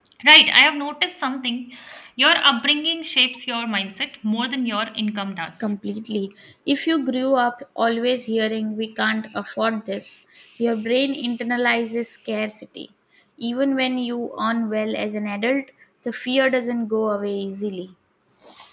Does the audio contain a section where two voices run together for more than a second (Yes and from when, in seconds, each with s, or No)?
No